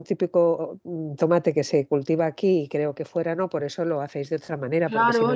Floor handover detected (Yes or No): Yes